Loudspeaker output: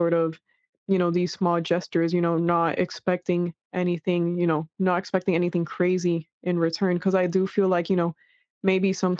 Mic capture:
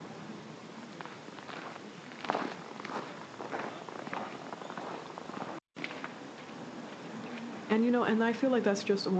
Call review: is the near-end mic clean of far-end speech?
Yes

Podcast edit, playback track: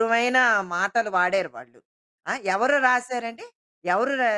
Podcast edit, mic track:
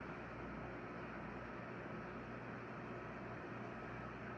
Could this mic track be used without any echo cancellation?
Yes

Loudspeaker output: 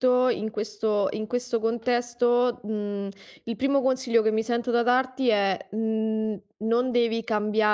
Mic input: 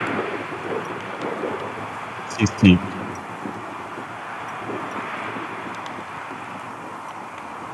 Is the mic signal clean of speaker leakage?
Yes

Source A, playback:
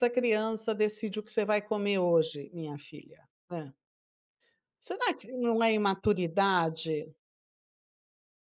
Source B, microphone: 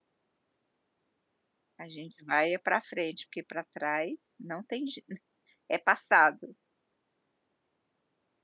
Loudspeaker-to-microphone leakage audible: No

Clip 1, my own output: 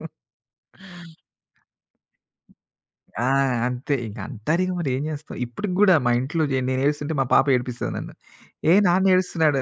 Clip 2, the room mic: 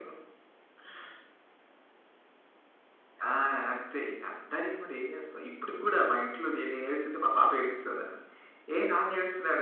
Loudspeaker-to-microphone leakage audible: Yes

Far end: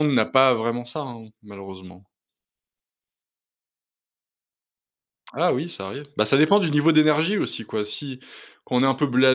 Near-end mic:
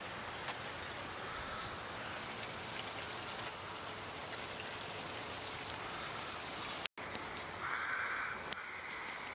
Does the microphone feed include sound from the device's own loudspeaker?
No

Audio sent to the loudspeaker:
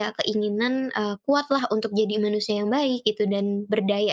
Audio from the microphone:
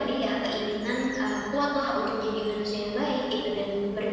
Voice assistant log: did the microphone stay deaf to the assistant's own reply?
No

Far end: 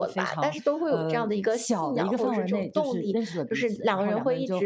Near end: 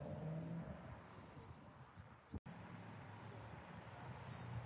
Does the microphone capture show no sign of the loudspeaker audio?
Yes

